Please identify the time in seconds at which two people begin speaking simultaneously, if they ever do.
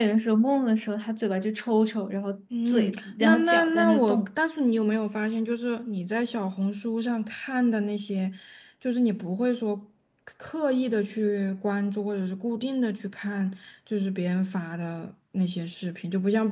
2.5 s

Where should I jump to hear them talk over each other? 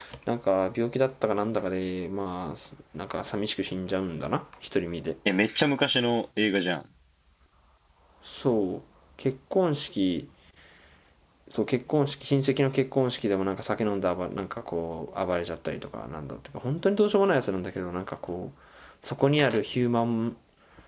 none

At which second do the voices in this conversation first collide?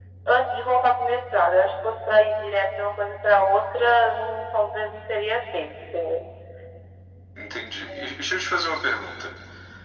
none

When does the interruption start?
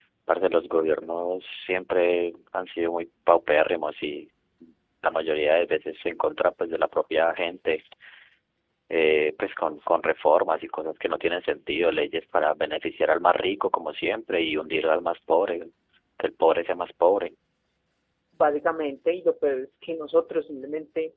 none

